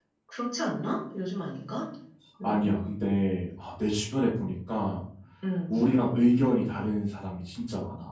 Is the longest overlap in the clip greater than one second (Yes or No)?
No